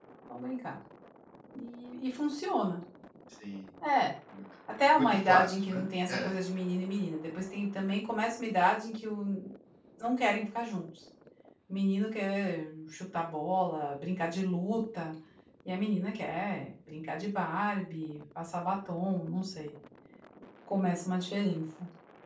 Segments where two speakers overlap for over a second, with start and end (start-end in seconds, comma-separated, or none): 4.9-6.3